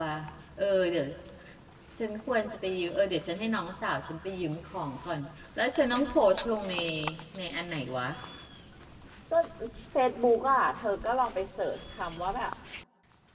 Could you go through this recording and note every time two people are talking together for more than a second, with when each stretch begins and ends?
none

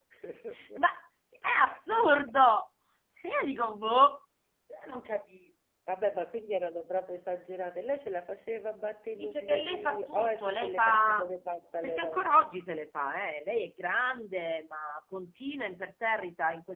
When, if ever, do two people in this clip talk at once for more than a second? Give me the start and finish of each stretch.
9.2-11.3

